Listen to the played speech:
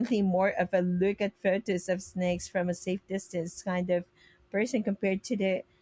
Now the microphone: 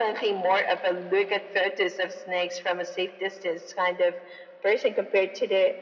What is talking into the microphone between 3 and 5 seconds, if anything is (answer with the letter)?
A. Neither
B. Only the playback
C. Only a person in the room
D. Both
B